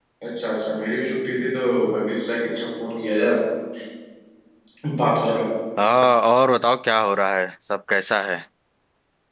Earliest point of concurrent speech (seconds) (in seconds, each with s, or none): none